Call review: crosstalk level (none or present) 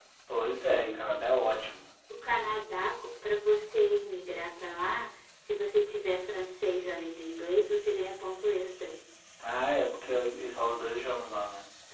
none